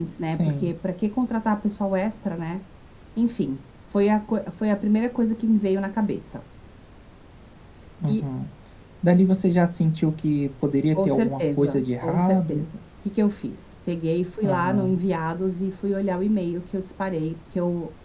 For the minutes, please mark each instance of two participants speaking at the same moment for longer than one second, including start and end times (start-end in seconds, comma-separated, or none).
10.9-12.6